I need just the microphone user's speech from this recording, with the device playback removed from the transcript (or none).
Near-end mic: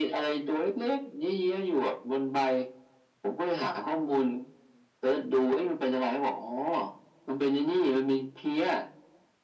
none